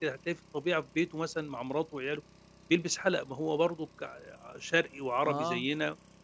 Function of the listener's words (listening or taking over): listening